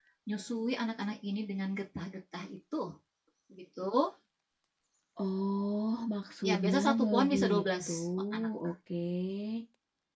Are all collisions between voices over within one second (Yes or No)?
No